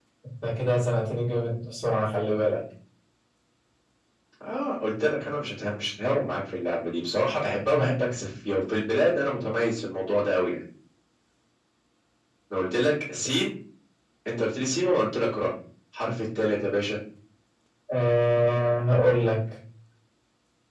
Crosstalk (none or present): none